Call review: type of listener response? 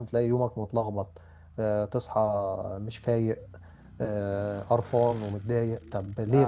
taking over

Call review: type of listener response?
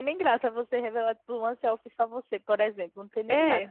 taking over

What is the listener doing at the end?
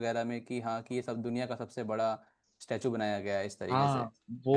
taking over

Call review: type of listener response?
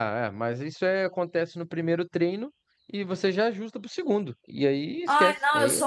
taking over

